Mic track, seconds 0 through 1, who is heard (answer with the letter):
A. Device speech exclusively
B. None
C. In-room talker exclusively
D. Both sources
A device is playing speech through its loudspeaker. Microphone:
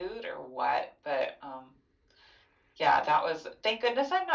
A